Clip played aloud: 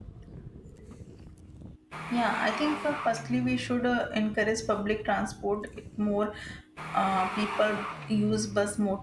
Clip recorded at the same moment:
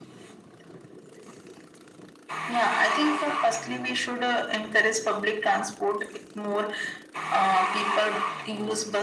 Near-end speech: none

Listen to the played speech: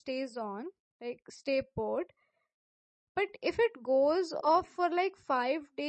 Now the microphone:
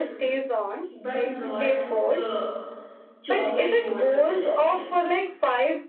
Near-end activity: present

